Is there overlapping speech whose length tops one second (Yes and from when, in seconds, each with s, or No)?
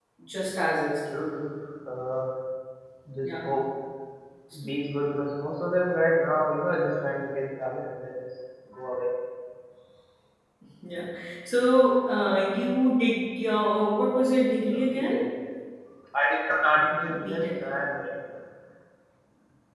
No